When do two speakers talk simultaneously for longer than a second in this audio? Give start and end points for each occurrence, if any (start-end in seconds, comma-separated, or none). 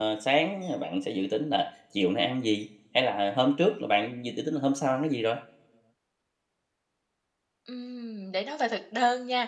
none